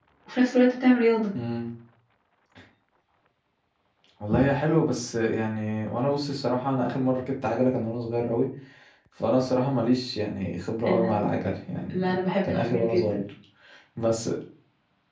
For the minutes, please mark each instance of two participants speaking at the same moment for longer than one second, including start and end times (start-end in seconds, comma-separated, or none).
11.9-13.2